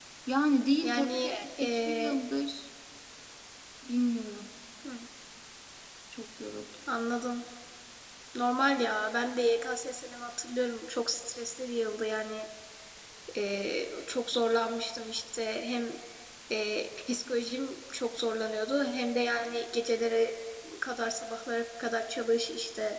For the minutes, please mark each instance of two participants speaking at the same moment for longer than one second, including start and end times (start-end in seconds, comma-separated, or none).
0.8-2.2